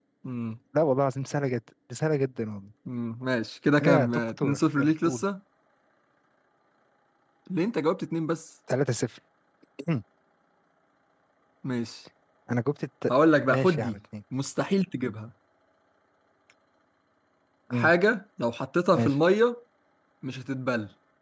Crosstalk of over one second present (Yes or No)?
Yes